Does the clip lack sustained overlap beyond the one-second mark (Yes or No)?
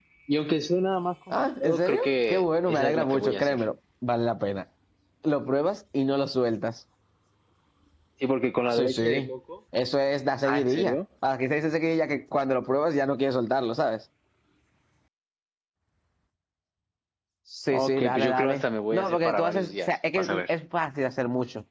No